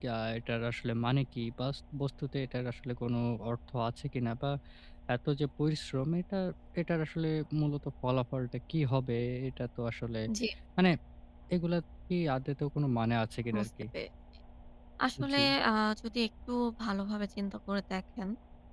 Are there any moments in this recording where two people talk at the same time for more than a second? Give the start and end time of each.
none

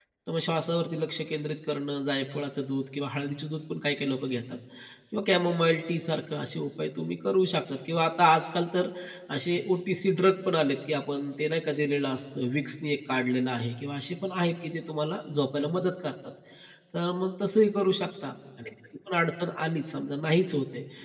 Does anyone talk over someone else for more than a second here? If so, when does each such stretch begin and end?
none

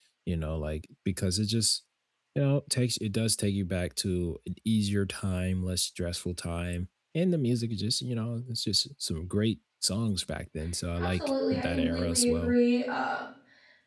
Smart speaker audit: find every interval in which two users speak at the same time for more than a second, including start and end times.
11.0-12.6

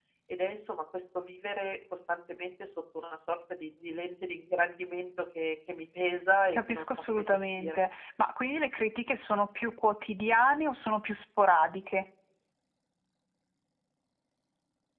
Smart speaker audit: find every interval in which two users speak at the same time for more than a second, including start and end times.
6.5-7.8

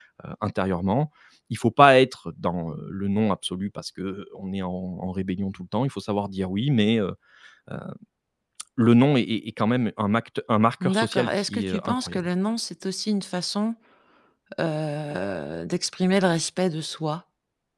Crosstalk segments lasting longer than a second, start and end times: 10.8-12.3

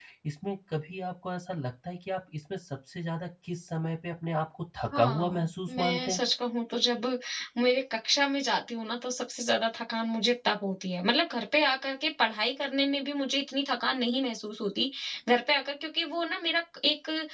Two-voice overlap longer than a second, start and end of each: 4.9-6.2

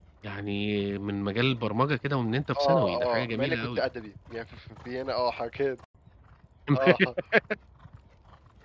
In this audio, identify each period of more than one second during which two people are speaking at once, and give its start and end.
2.6-3.8

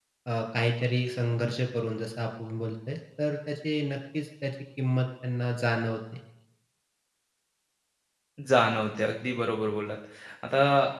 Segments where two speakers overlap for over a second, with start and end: none

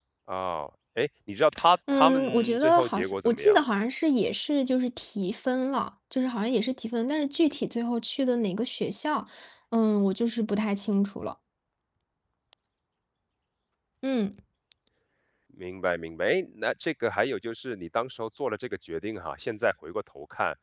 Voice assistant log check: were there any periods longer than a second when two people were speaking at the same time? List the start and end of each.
2.0-3.6

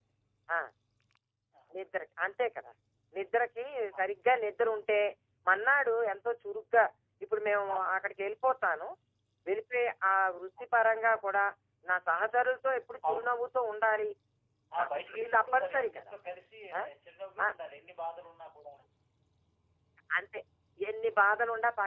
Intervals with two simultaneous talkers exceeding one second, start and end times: 14.8-16.1

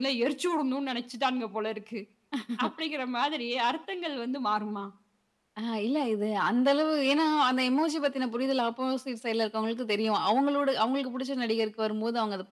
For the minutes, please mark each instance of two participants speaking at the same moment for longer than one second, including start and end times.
none

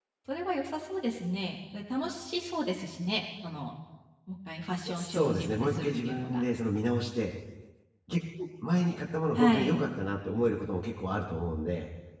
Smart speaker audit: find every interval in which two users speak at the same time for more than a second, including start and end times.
4.9-6.4

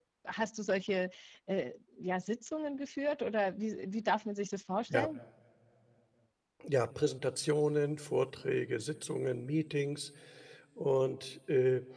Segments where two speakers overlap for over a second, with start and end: none

